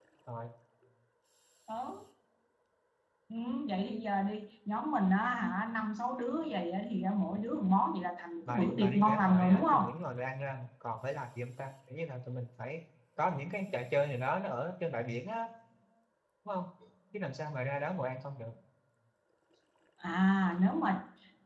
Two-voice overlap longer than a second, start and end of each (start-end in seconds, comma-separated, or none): 8.5-9.8